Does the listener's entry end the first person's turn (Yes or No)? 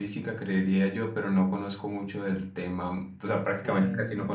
No